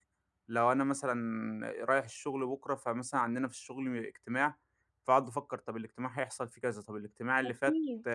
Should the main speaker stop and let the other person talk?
No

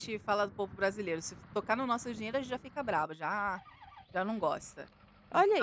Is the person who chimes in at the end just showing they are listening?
No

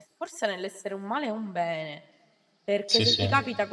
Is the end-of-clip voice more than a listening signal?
No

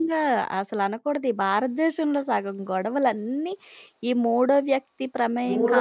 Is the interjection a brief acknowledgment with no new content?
No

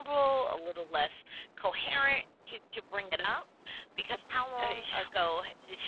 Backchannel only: Yes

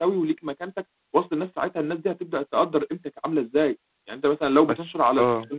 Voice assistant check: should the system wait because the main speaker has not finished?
Yes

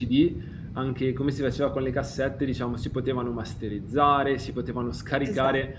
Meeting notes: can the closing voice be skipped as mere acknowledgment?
Yes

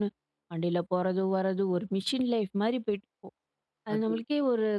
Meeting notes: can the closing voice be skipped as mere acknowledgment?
Yes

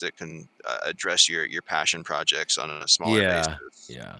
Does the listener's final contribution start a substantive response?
Yes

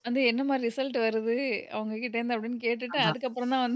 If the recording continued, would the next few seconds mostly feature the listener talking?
No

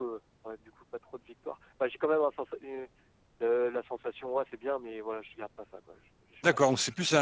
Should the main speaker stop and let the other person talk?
Yes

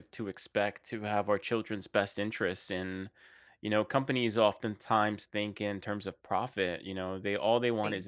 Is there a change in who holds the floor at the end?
No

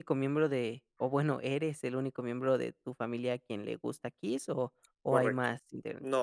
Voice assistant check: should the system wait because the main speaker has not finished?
No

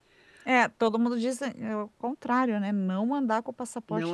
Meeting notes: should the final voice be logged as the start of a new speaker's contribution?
Yes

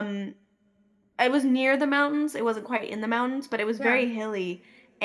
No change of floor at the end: Yes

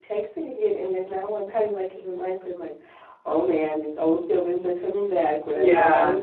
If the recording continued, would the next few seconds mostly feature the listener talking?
No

